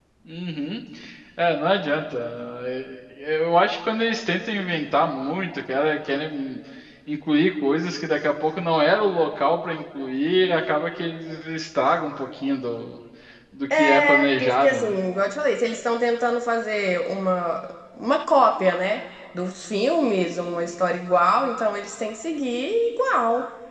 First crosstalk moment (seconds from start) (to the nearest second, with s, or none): 14 s